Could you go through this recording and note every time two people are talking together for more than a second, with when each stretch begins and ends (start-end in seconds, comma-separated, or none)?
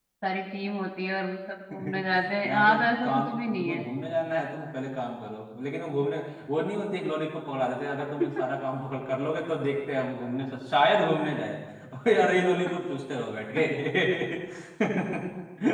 2.4-3.8